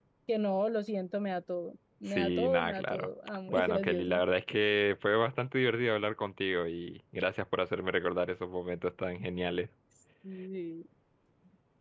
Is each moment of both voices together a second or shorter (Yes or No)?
No